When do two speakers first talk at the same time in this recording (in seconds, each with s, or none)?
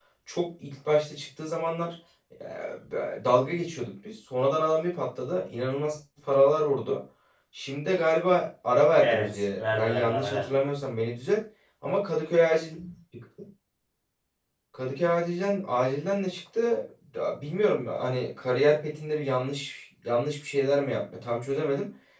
9.0 s